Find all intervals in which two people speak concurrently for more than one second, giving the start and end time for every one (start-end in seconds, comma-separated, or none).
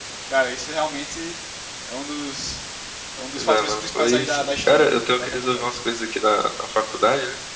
3.3-5.7